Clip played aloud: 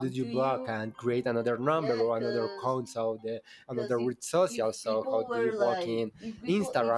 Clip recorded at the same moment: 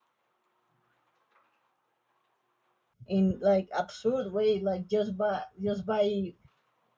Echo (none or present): none